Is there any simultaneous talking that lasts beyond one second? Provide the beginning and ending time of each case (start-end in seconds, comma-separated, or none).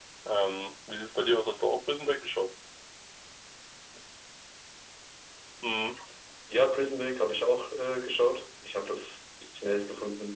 none